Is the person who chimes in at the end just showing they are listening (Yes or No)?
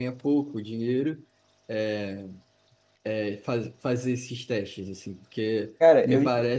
Yes